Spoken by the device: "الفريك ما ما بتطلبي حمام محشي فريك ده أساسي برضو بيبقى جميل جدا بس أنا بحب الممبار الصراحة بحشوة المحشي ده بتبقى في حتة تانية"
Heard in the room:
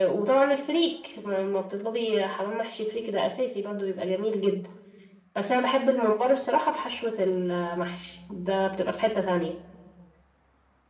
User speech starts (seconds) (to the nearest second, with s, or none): none